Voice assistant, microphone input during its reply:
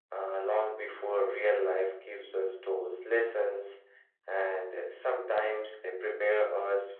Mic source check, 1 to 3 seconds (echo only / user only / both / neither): echo only